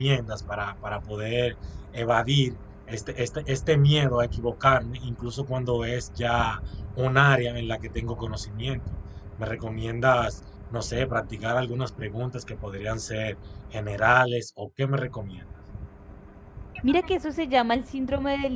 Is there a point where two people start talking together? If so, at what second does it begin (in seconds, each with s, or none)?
none